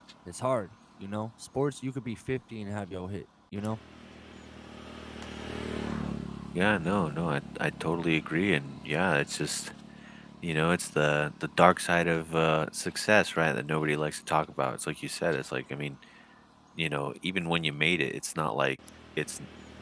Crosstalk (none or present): none